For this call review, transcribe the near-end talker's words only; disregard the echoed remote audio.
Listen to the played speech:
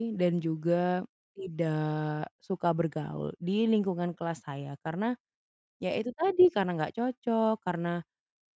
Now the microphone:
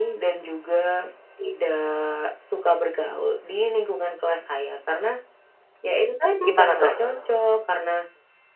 gimana tuh?

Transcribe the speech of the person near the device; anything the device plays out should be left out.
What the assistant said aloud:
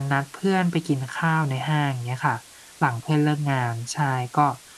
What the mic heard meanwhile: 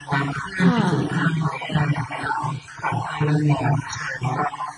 ค่ะ

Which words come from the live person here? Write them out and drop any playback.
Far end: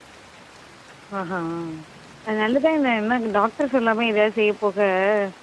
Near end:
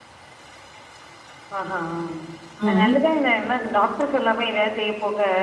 ம். ம்.

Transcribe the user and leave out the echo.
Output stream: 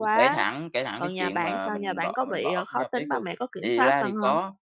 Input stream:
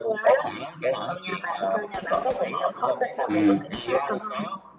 Ừm.

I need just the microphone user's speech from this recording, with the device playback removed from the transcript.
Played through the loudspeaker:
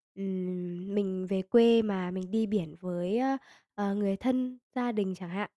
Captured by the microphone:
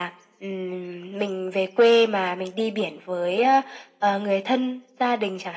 none

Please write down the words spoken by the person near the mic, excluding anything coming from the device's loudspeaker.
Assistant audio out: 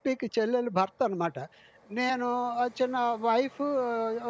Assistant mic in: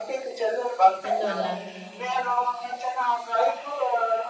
ఎందువల్ల?

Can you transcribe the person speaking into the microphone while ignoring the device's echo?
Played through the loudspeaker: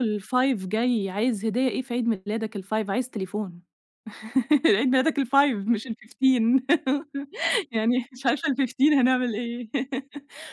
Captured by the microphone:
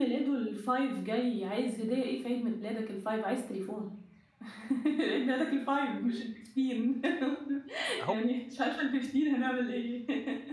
أهو أ

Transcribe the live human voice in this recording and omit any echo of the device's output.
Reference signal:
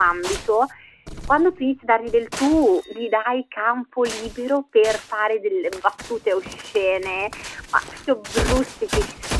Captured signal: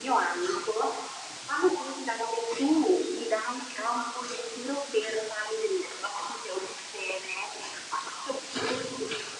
none

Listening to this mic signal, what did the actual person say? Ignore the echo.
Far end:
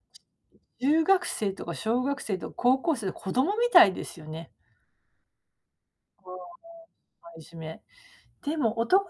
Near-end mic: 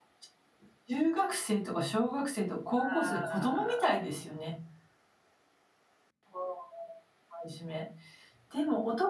ああ。

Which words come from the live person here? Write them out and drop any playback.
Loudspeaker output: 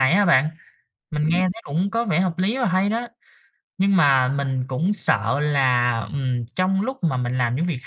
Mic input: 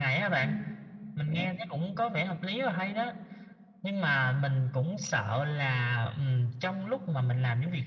Ừm.

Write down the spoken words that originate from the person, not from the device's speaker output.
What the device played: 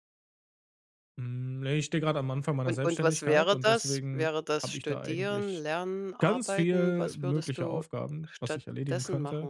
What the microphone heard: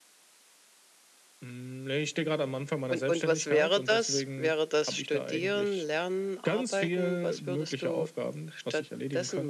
none

